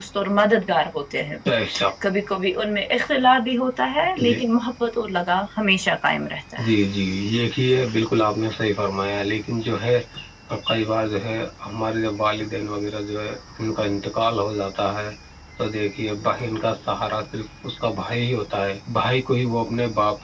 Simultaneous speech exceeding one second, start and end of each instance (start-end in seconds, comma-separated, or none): none